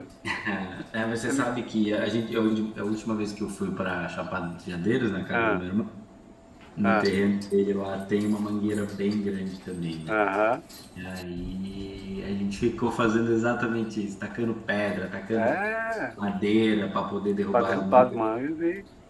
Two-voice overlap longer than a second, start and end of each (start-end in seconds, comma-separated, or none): none